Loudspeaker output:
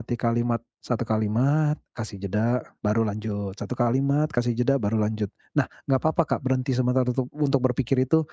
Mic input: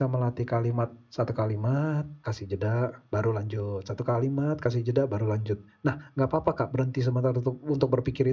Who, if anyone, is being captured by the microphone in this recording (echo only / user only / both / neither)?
echo only